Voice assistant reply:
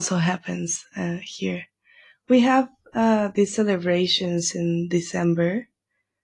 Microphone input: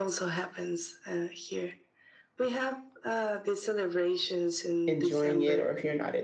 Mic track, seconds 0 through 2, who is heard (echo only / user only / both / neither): echo only